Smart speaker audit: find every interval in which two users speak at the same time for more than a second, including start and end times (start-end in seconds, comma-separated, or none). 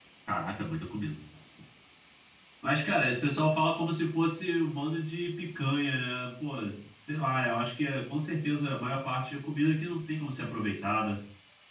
none